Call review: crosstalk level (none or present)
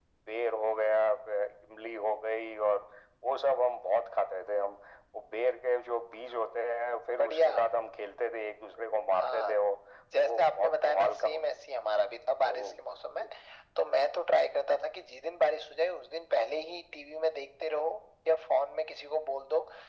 present